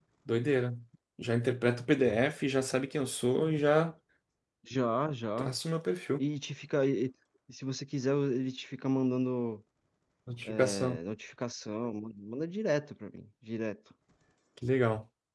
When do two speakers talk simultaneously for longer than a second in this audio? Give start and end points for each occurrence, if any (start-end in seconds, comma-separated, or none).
none